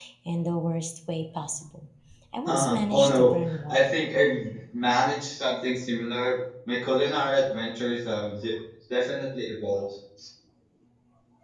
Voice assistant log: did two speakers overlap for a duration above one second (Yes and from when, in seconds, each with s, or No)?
Yes, from 2.5 s